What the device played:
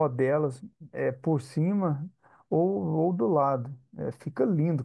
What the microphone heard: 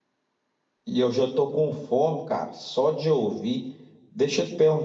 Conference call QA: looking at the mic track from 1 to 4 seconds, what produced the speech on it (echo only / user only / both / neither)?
user only